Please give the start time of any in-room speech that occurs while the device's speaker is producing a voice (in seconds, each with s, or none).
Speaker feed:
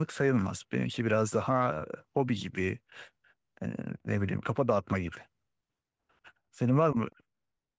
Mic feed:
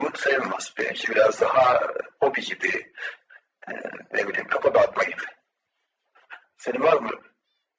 none